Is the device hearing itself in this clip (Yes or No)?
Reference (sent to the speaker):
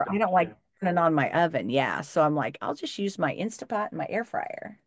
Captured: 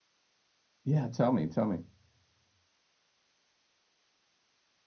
No